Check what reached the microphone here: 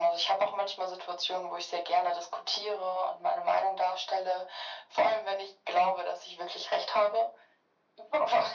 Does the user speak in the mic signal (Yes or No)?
No